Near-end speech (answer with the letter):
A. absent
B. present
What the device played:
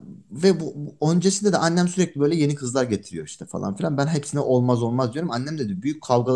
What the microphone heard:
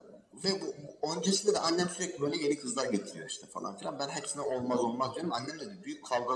A